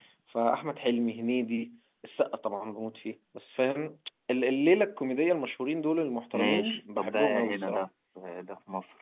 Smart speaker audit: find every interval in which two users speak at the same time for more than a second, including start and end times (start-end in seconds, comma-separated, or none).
6.3-7.8